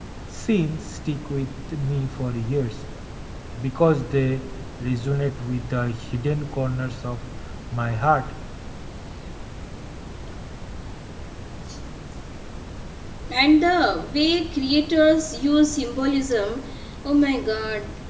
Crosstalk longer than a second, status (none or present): none